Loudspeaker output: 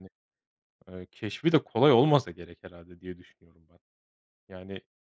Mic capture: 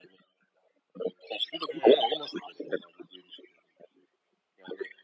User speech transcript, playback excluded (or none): Hıı.